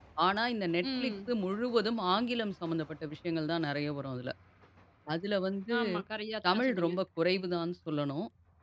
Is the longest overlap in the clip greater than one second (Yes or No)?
No